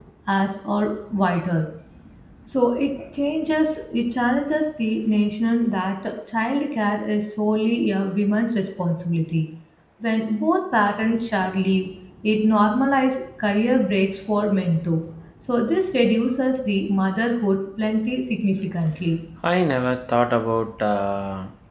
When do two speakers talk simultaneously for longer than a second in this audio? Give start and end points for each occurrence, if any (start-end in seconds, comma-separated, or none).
none